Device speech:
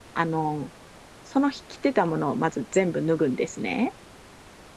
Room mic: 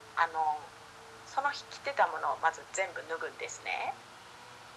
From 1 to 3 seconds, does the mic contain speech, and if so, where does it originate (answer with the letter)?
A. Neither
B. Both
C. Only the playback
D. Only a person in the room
C